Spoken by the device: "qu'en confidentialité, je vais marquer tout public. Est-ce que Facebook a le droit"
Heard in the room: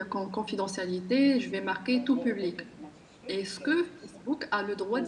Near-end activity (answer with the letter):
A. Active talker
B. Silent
A